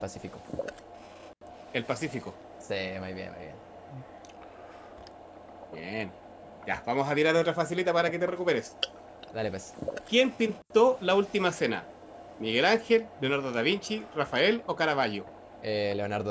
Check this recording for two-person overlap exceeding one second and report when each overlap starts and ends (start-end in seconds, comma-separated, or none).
none